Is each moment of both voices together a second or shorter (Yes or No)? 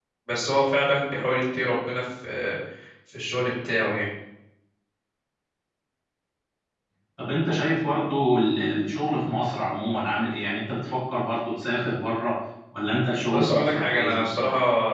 No